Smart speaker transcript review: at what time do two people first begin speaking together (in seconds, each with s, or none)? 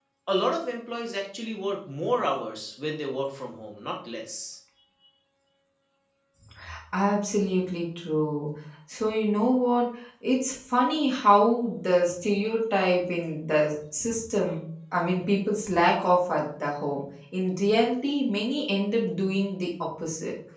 none